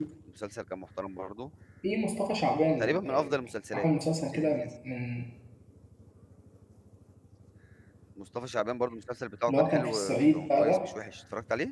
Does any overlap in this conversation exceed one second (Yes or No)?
Yes